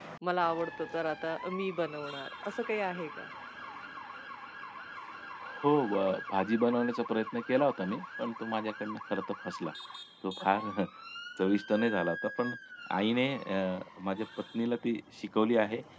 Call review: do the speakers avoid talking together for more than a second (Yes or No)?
Yes